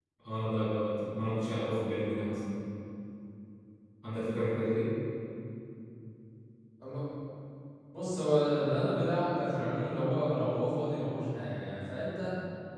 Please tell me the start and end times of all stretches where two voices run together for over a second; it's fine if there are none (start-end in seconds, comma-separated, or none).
none